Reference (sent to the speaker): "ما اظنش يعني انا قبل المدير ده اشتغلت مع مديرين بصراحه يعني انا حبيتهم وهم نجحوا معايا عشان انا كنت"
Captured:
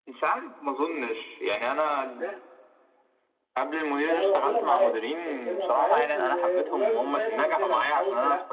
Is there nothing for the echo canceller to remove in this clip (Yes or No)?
No